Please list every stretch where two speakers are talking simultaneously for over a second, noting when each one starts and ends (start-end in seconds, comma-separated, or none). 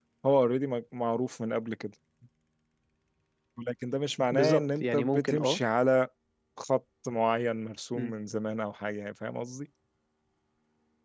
4.3-5.6